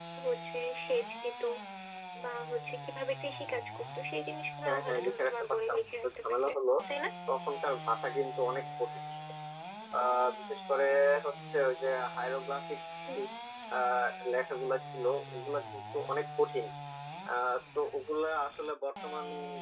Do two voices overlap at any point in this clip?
Yes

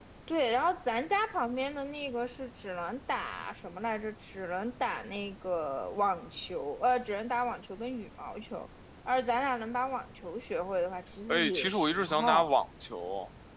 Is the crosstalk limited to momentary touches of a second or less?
No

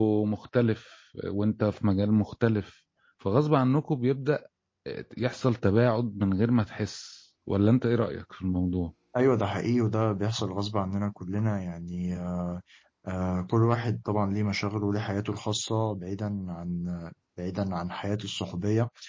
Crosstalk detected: No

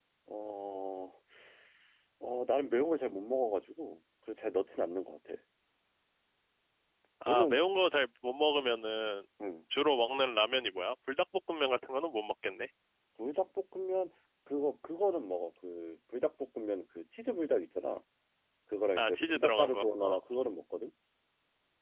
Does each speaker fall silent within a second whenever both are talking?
No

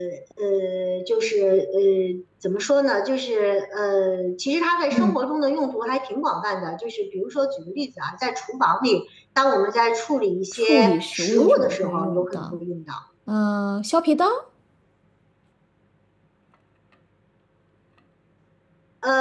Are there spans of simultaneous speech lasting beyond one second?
Yes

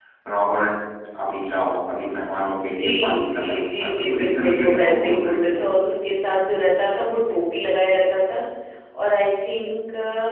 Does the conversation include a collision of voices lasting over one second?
Yes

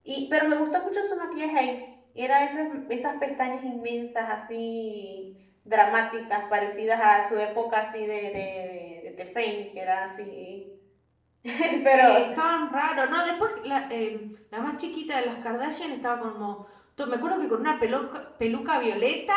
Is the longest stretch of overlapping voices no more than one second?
Yes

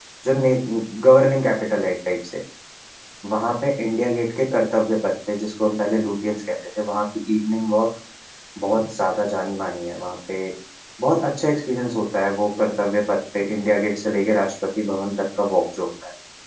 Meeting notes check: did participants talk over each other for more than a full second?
No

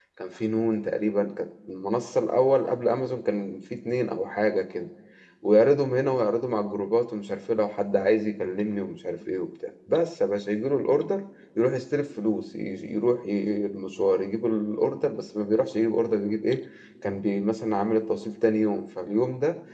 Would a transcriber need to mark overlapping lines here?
No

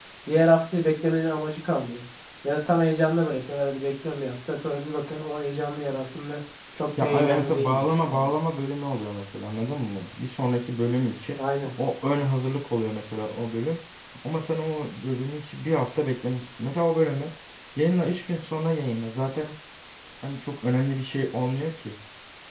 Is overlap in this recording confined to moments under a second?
No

